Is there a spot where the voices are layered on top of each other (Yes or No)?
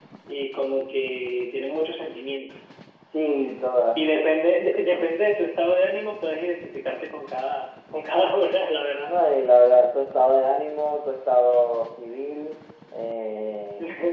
No